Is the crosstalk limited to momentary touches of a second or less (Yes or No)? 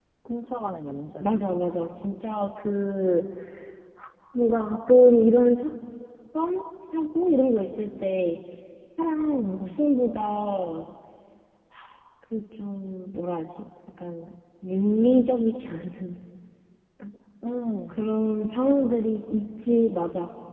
Yes